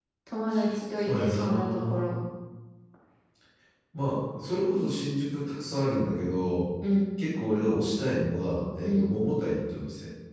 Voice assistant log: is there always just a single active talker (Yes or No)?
No